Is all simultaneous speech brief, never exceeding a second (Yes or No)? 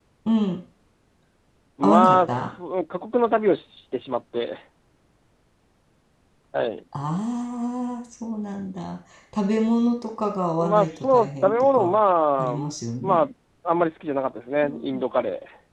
No